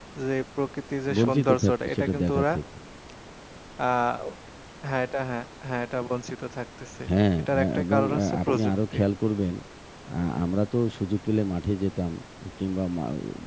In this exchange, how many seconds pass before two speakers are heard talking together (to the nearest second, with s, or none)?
1 s